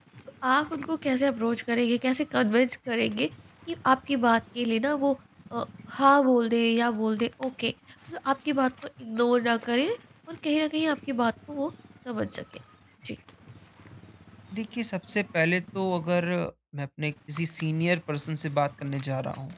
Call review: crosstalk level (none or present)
none